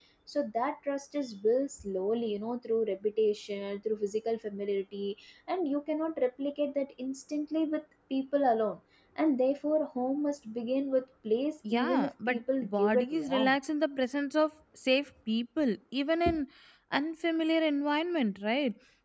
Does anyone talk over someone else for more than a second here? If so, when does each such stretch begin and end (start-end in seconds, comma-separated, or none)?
11.7-13.6